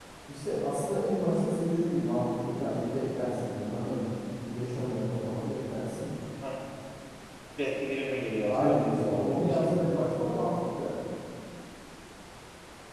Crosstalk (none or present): present